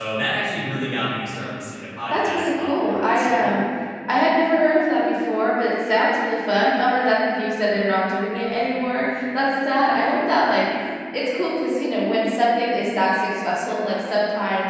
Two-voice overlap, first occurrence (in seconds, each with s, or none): 2.1 s